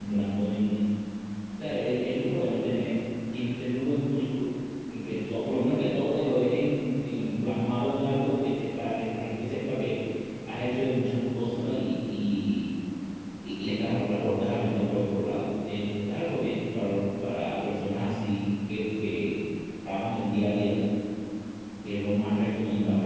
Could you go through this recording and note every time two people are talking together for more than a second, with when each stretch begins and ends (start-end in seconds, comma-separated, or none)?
none